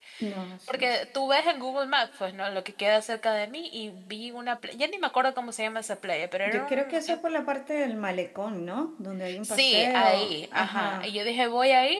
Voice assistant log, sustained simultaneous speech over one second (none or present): present